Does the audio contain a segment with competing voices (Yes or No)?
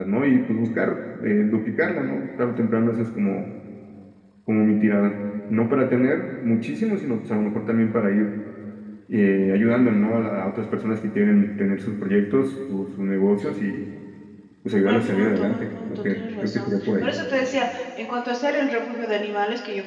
Yes